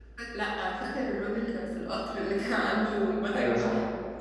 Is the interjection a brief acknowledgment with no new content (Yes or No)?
No